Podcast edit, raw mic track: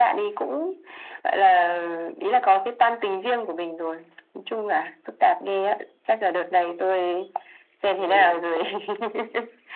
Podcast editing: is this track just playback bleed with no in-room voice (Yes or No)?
No